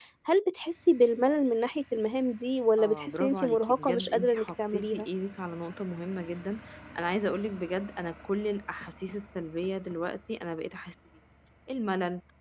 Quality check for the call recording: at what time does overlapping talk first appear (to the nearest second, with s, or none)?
3 s